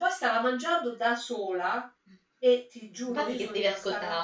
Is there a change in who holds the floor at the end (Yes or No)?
Yes